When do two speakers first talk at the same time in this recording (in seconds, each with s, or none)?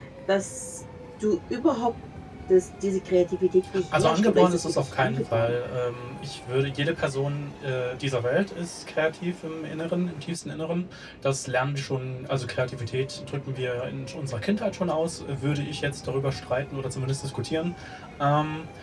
3.9 s